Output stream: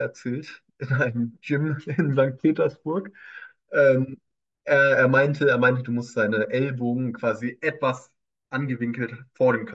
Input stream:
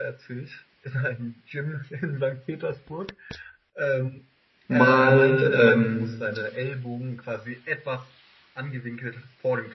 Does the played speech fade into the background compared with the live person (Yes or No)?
Yes